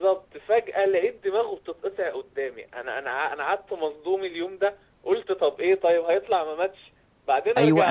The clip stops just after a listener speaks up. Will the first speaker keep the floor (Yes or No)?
No